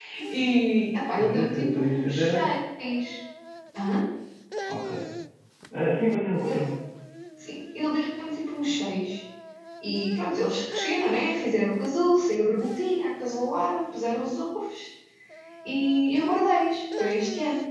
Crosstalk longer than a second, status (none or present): present